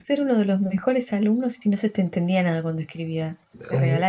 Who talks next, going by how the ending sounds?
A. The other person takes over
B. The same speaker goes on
A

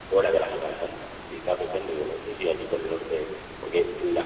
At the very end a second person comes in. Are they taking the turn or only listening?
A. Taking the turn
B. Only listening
B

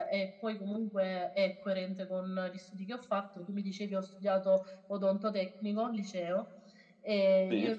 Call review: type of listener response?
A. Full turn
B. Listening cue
B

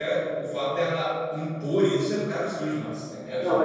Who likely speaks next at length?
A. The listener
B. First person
A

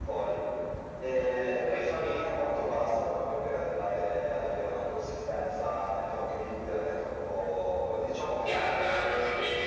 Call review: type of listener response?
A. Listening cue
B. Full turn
B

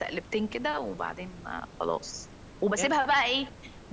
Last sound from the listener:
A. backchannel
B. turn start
A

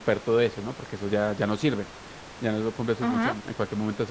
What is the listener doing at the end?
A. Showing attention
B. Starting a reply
A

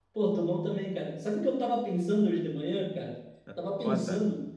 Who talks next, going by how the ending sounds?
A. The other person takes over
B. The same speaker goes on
B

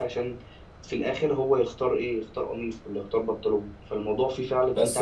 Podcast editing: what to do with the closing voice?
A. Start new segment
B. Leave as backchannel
A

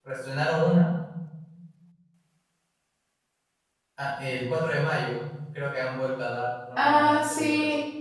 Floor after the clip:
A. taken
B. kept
A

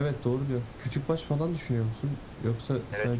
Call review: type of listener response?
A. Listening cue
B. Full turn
B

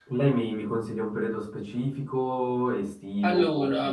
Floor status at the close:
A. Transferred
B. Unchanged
B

